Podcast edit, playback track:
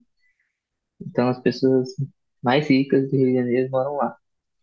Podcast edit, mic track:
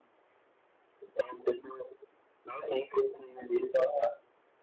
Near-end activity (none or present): none